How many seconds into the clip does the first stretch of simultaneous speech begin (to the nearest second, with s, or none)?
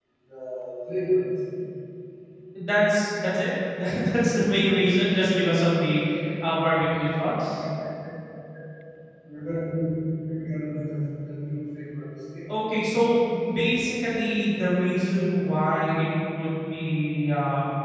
none